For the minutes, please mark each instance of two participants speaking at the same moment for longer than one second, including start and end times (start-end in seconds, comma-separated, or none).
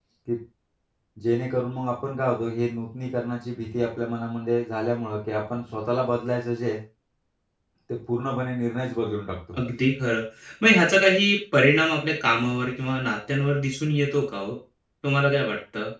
none